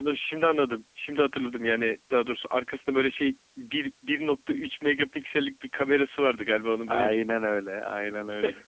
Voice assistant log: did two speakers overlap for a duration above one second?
No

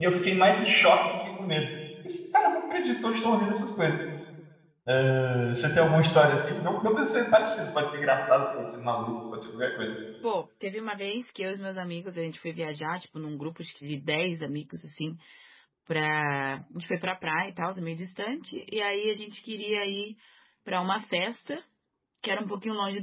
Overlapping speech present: No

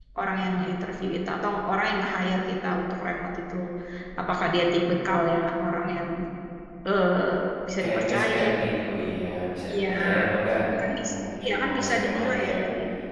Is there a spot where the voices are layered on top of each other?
Yes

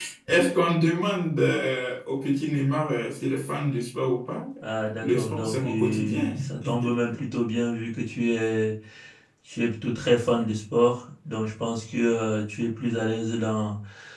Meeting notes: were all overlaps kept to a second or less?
No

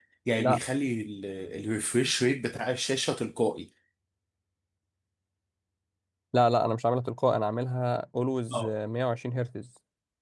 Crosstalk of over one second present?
No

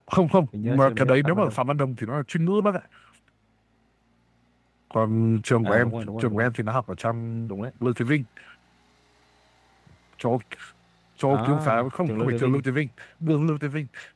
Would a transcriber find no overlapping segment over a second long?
No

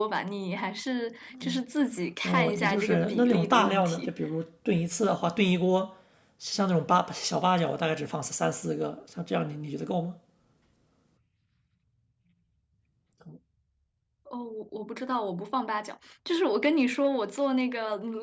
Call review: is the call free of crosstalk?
No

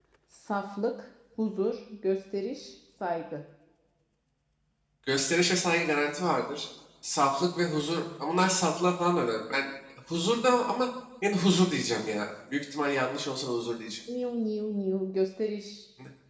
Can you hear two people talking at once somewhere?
No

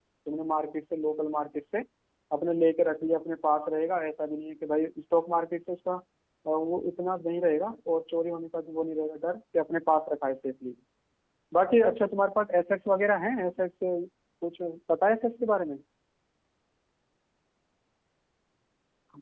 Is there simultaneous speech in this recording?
No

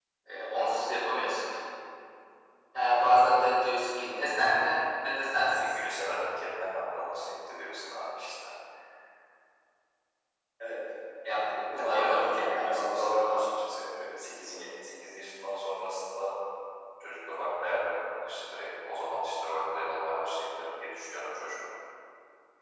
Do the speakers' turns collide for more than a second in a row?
Yes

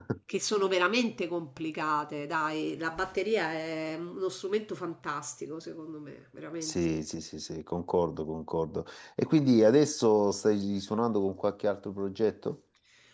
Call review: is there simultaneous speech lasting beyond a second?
No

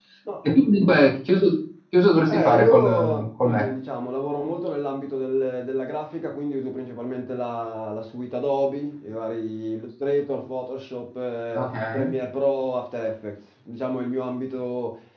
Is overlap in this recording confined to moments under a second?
No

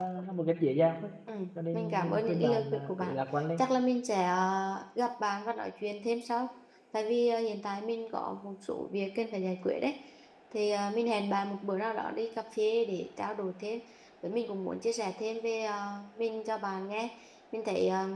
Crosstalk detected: Yes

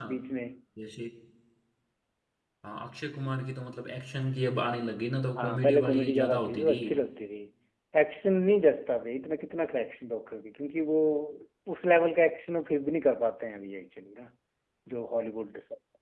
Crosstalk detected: Yes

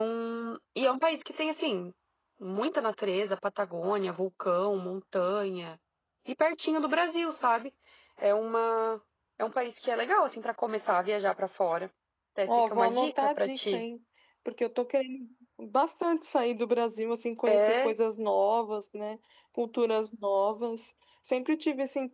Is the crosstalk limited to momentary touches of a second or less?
No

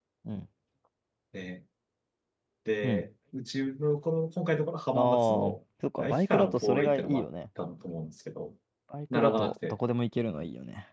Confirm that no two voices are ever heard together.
No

